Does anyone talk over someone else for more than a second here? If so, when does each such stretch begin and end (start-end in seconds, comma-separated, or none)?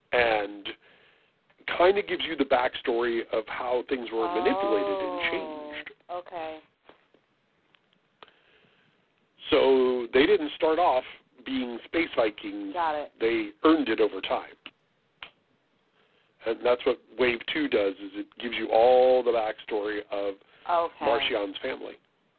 4.2-5.8